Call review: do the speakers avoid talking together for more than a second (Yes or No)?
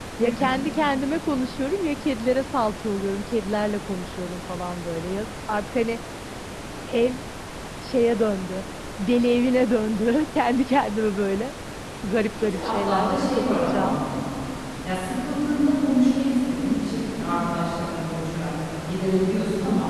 No